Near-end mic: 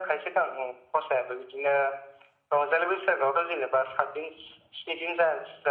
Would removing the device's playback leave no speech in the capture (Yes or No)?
Yes